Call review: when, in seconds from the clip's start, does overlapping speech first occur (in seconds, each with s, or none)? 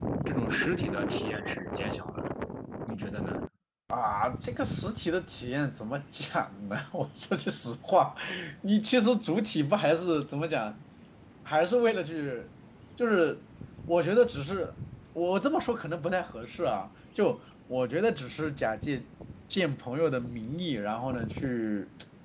none